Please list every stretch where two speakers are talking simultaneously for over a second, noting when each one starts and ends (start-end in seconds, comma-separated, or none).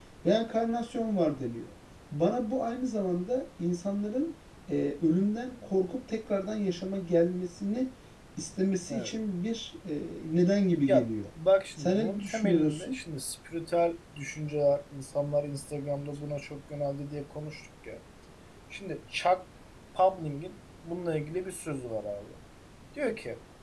11.8-13.0